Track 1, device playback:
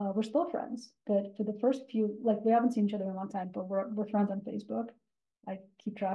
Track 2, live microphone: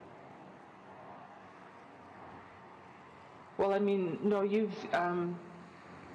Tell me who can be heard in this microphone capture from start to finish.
user only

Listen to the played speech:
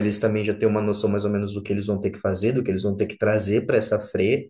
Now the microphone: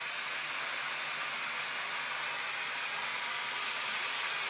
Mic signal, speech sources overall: neither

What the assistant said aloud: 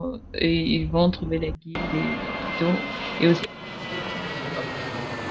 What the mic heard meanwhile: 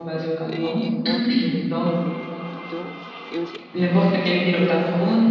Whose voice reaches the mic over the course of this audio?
both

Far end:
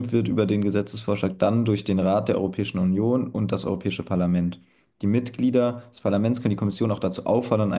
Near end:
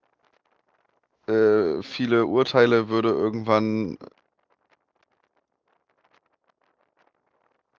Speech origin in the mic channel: user only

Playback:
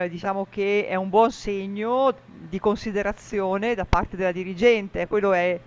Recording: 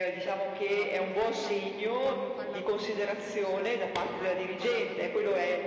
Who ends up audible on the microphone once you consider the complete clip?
both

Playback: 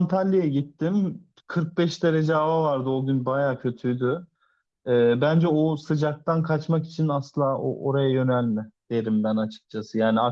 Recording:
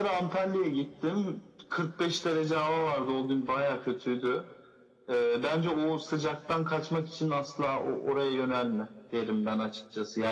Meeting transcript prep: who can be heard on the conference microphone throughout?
echo only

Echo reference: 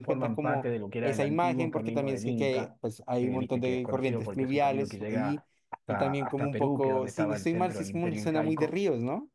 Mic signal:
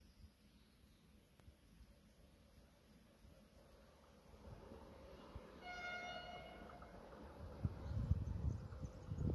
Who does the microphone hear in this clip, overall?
neither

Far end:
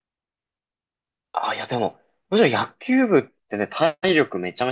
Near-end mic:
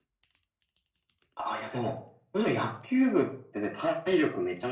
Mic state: echo only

